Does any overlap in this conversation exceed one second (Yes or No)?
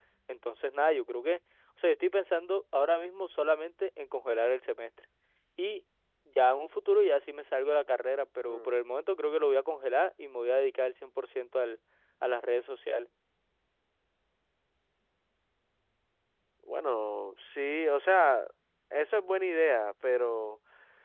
No